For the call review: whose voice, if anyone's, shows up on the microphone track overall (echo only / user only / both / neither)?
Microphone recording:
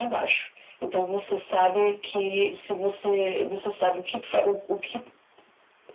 echo only